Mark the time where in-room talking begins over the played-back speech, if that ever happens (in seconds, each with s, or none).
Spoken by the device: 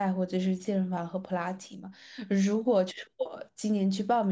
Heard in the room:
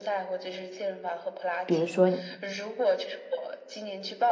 1.6 s